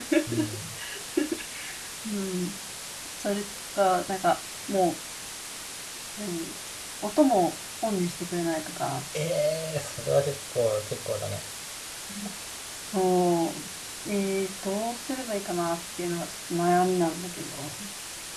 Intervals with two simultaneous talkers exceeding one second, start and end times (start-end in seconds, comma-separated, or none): none